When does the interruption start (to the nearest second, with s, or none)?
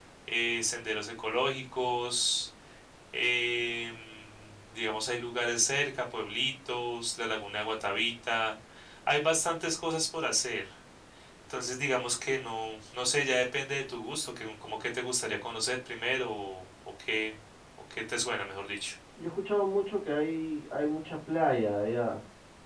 none